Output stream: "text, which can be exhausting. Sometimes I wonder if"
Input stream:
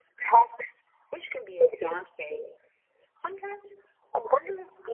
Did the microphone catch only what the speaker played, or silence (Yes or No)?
Yes